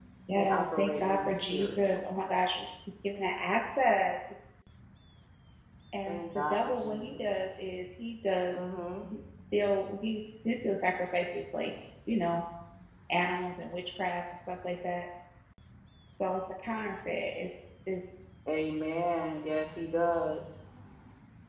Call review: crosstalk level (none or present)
present